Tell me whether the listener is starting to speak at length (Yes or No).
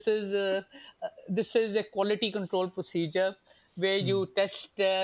No